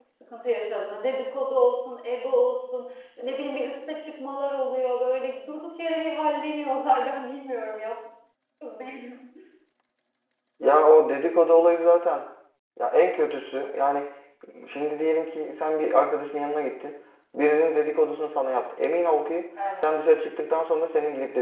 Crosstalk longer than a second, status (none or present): none